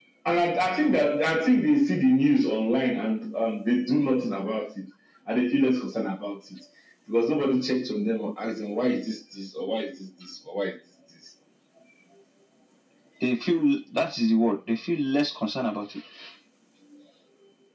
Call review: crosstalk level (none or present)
none